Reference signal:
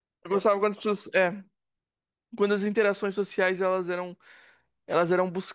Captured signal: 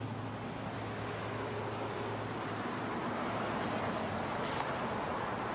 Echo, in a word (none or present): none